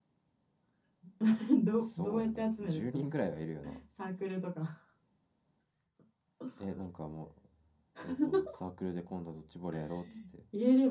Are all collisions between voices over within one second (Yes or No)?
No